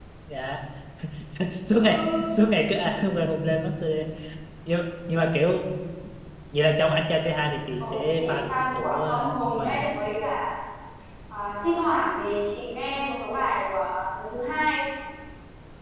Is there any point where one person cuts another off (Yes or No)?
Yes